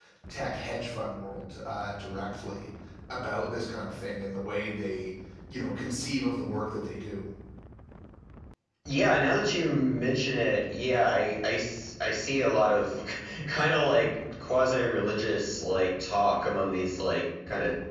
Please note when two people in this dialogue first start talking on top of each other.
none

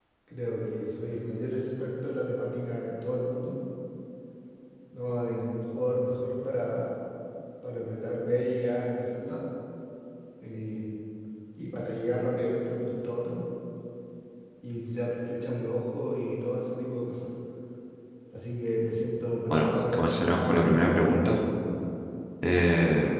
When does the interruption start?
19.5 s

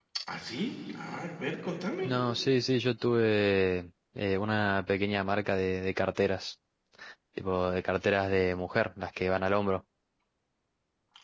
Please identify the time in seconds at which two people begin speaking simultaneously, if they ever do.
none

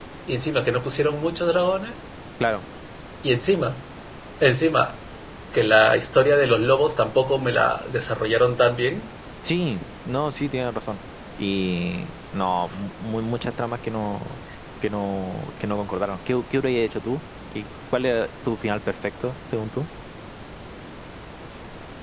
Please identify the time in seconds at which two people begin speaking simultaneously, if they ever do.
none

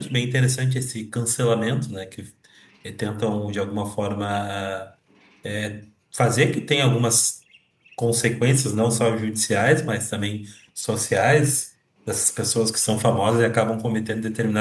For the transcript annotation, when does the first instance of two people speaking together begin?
none

